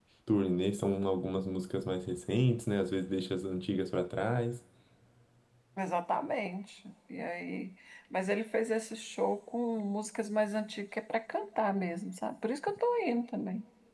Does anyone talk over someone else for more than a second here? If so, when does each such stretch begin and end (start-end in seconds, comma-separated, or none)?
none